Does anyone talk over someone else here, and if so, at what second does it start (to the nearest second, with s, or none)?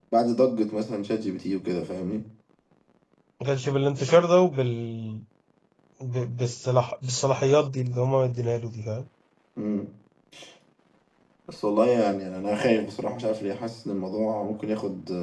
none